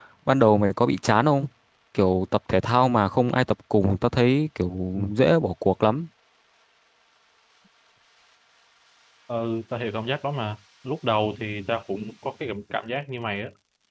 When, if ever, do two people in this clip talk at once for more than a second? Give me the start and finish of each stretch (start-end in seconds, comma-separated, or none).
none